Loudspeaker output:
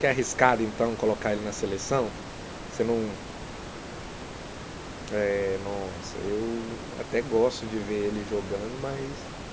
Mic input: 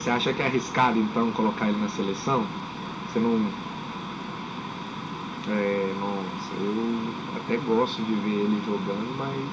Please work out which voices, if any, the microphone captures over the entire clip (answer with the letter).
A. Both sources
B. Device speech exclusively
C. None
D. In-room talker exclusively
B